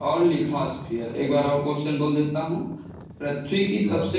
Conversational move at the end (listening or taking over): listening